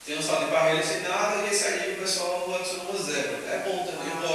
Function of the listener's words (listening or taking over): taking over